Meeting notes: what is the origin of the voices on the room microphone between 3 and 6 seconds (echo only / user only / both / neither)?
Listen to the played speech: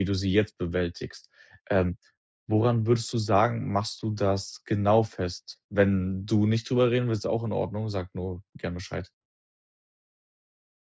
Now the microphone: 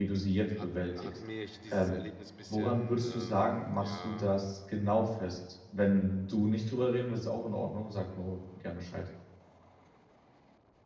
both